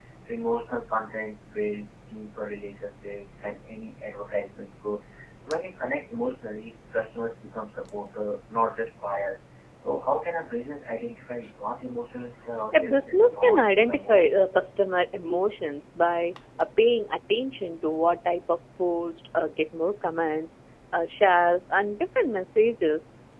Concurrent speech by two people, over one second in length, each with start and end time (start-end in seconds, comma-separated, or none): 12.7-14.3